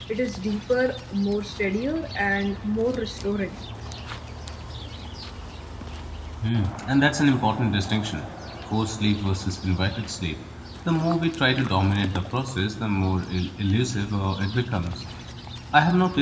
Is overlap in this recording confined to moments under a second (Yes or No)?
Yes